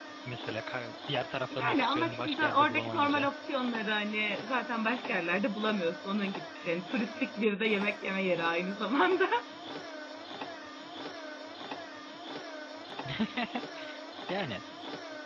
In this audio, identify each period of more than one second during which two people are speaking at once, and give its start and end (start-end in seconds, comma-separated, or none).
1.5-3.3